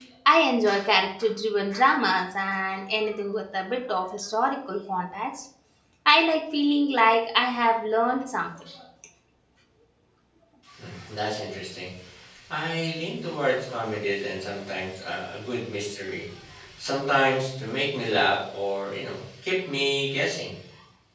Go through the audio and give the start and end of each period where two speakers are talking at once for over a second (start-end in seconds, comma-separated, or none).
none